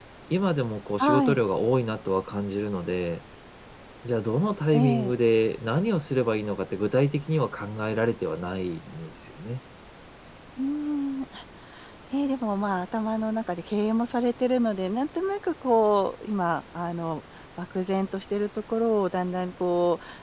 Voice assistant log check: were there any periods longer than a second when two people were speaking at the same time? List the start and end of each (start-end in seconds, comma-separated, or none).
none